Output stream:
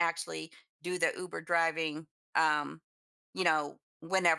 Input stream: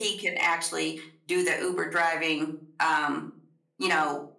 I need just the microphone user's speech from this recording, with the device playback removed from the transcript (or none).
none